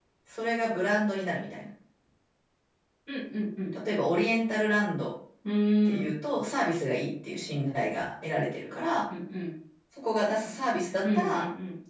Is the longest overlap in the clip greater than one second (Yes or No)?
No